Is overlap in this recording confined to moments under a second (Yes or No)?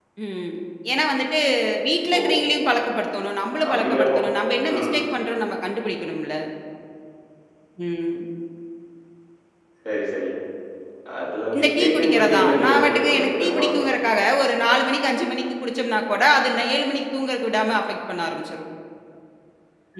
No